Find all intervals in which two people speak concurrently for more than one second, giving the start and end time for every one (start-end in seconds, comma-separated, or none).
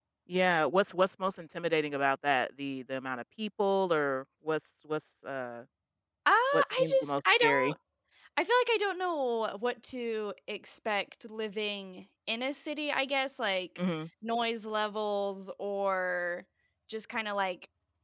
6.5-7.7